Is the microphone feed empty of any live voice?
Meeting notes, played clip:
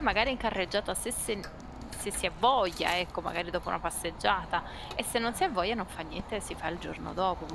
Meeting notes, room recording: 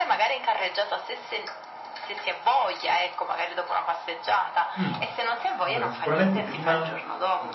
No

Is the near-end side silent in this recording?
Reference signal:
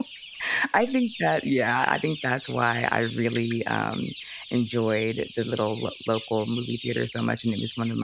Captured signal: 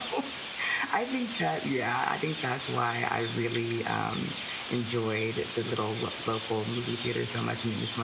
Yes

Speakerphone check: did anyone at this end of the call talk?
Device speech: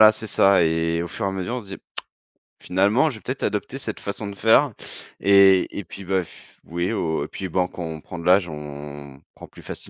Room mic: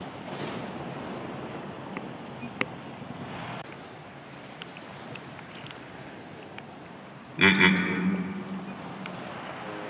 Yes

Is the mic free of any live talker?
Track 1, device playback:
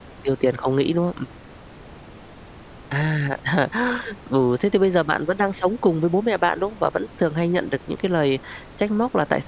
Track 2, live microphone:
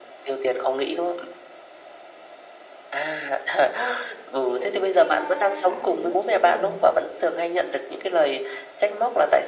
No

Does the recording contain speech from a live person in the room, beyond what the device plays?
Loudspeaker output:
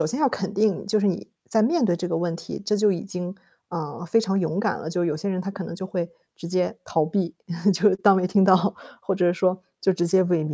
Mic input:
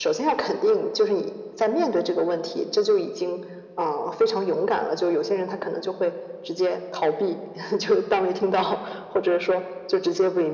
No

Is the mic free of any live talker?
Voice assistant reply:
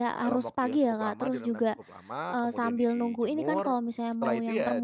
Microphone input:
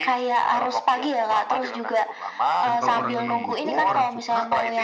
No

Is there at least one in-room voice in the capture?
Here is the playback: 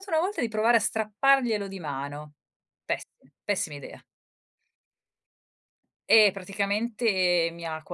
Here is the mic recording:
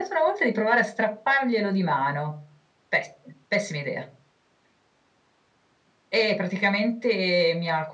No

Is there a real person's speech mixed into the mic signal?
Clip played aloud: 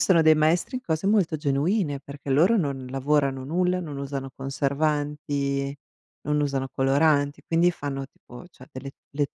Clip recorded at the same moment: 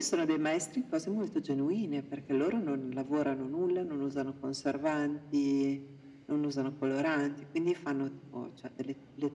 No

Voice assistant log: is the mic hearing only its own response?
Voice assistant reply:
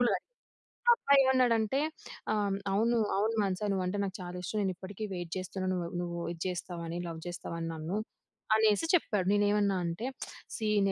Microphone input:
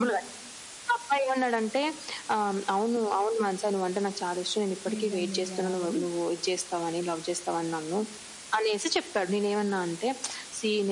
No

